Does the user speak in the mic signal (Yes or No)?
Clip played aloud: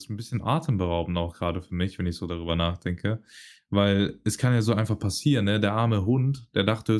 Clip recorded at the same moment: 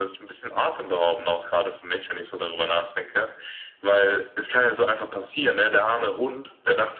No